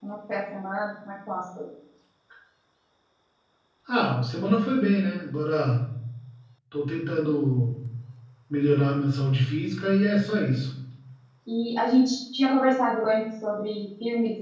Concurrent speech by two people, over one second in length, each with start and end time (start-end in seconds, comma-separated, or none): none